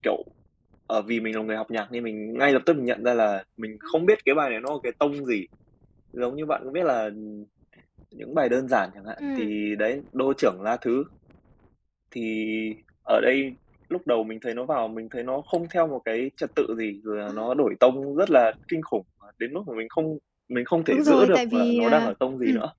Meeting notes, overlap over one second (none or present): present